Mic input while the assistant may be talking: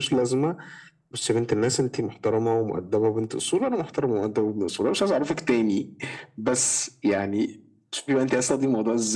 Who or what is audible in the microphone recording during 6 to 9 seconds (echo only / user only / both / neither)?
echo only